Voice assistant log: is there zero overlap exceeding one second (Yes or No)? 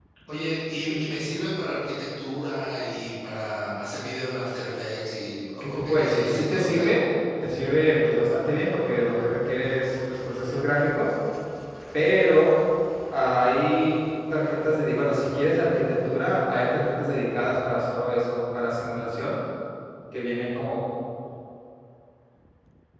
No